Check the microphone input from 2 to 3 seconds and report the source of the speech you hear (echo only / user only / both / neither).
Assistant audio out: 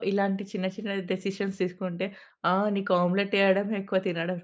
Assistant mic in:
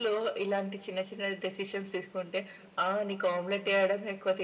echo only